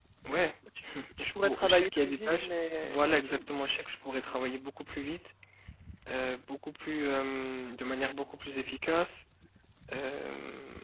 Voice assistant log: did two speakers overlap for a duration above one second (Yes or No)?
Yes